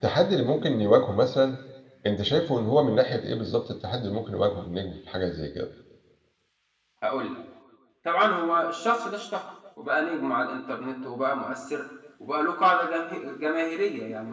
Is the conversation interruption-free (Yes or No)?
Yes